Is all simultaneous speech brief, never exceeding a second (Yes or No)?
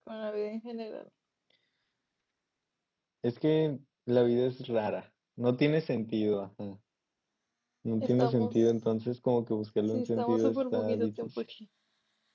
No